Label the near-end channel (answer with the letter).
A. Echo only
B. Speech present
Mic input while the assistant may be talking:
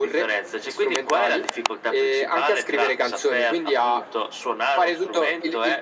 A